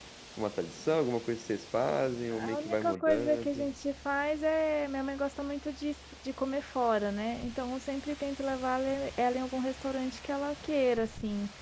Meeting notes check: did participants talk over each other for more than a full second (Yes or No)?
Yes